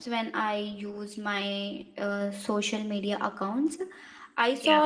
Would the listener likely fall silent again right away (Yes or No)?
Yes